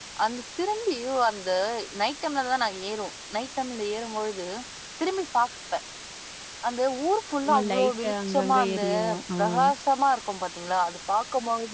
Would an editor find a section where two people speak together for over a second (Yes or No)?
Yes